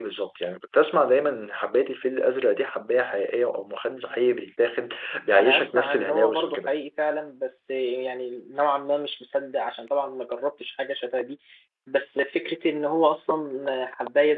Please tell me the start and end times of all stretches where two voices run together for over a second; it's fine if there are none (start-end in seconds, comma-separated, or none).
5.3-6.7